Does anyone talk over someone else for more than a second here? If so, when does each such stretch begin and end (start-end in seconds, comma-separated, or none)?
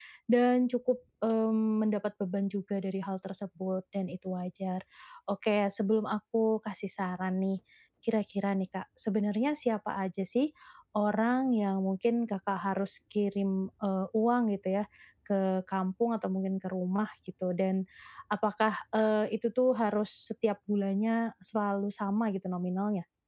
none